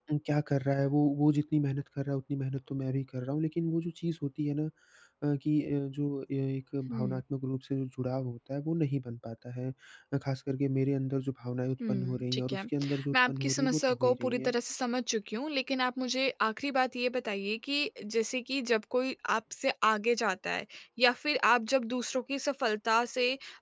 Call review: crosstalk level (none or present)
present